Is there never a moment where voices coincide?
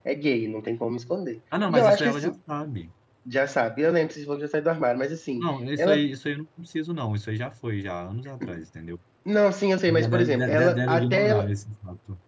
No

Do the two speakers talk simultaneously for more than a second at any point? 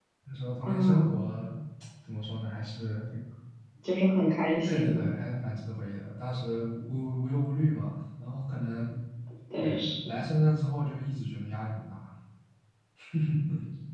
No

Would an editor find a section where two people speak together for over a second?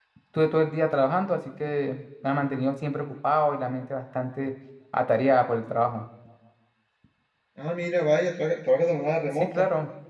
No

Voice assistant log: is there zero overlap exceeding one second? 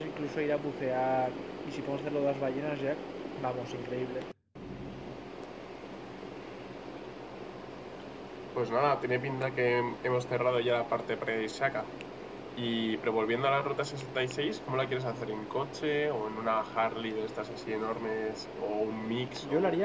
Yes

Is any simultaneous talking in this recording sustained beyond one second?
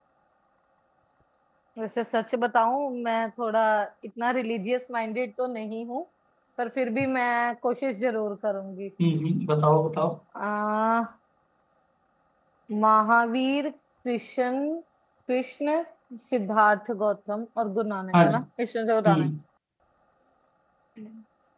No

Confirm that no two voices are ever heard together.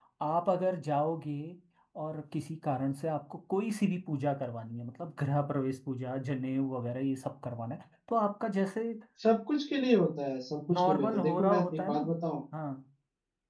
No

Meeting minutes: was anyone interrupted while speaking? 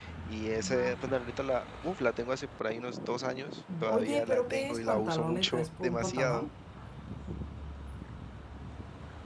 Yes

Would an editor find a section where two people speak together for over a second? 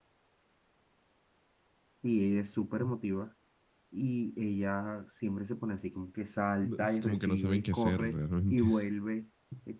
Yes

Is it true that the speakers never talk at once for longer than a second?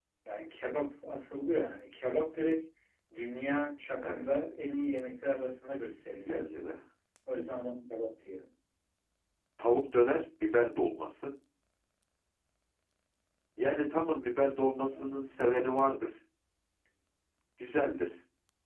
Yes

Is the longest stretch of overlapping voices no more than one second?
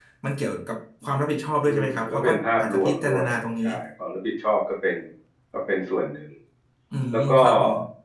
No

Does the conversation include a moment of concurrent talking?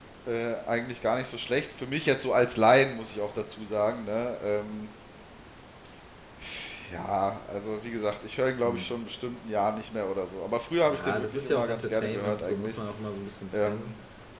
Yes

